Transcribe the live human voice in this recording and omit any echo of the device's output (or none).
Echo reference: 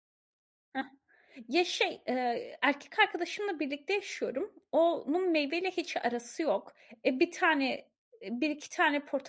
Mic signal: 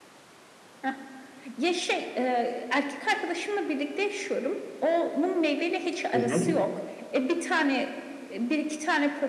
Hı hı.